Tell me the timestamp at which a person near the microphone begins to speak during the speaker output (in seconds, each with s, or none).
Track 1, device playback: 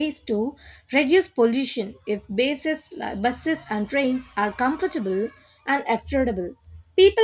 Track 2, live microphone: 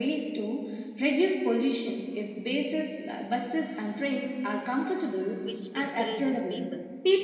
5.4 s